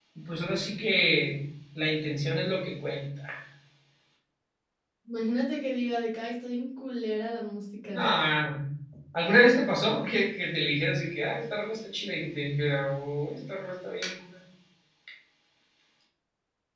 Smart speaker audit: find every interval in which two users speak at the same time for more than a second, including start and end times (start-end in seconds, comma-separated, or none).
none